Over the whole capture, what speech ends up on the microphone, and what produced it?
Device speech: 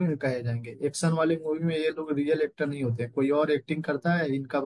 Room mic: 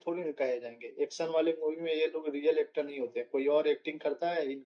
echo only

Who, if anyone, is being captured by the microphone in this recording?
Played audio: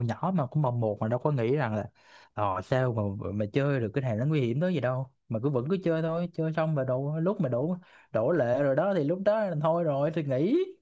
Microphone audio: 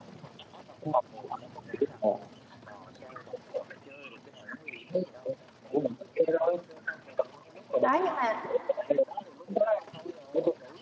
both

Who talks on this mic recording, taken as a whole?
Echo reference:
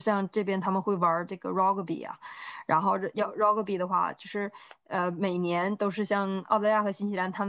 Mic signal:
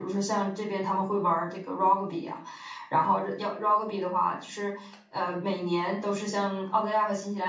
echo only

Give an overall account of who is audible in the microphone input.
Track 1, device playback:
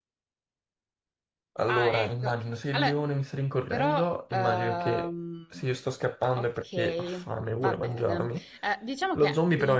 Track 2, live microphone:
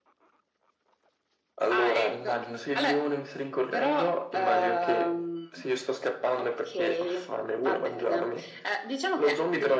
echo only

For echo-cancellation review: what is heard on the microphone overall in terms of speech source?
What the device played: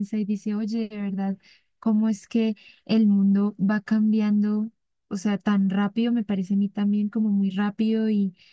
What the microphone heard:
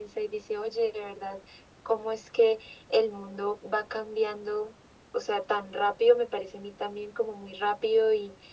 echo only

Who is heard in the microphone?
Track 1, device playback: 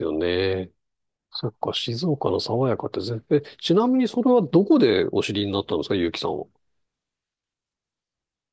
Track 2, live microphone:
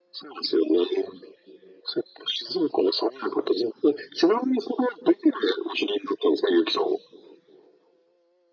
echo only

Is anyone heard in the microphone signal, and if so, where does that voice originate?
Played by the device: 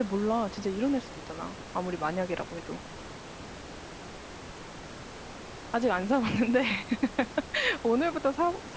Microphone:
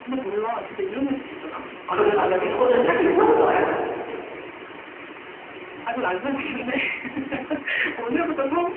both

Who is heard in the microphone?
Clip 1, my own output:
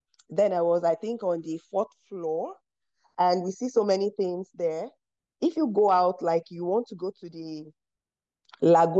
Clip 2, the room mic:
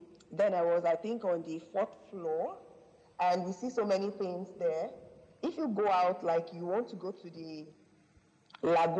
echo only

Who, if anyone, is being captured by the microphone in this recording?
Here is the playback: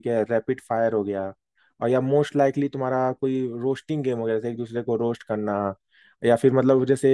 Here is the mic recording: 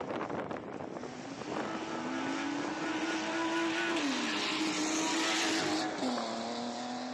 neither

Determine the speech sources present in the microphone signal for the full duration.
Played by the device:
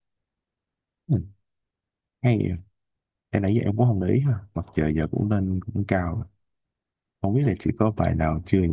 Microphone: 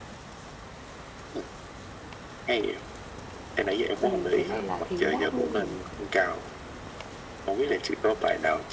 both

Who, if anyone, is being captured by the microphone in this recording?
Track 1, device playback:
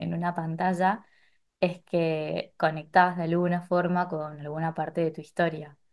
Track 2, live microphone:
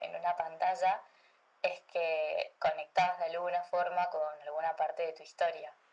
echo only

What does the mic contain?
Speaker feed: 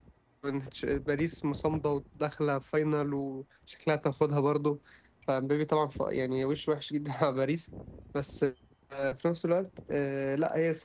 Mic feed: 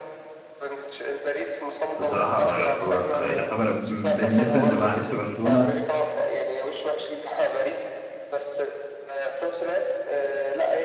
both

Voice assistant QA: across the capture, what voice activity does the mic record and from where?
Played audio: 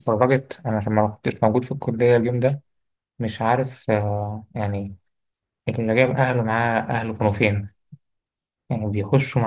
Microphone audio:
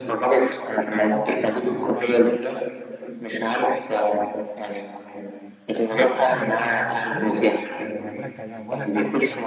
both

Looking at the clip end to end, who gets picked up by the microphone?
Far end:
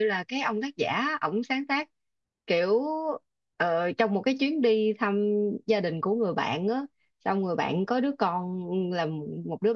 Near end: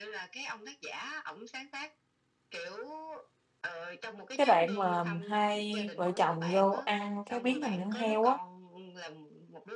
both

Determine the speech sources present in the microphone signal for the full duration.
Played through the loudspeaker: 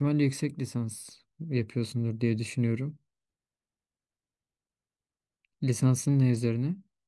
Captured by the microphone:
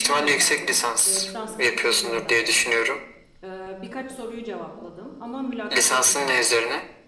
both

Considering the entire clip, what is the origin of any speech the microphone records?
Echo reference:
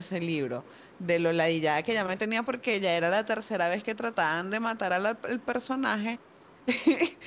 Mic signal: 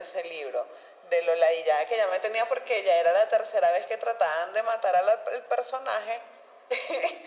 echo only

